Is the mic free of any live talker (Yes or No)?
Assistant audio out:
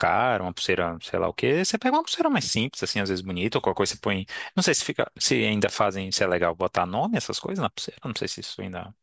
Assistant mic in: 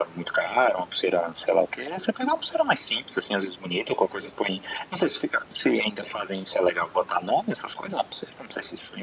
Yes